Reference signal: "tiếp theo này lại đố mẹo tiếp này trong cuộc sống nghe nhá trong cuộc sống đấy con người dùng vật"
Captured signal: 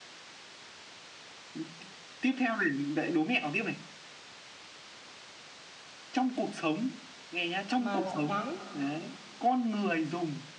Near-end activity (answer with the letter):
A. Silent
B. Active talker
B